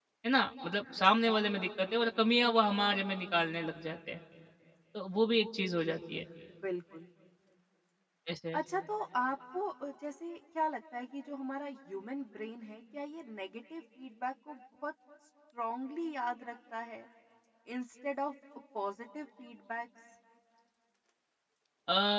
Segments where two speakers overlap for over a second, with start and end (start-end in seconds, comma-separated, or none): none